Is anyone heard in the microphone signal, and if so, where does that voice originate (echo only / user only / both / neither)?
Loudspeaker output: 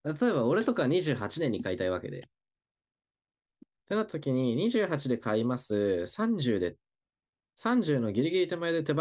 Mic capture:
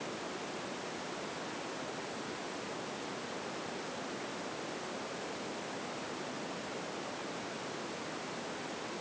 neither